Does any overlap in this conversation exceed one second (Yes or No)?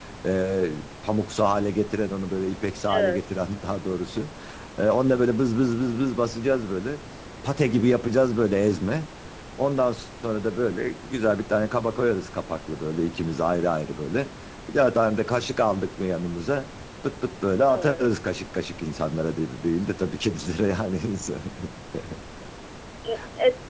No